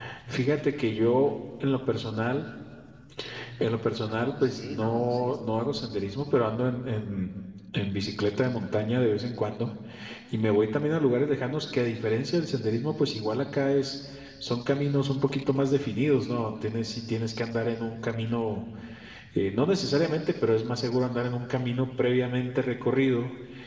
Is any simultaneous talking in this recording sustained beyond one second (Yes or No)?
Yes